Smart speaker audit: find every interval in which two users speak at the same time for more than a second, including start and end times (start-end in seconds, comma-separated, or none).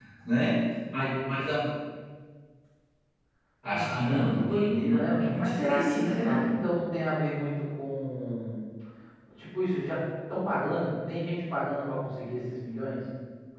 3.7-6.5